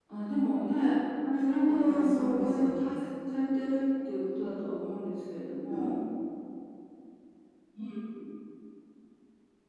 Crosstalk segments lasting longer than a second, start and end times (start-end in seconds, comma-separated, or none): 1.4-2.7